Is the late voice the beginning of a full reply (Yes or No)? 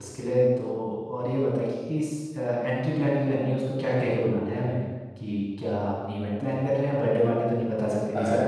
Yes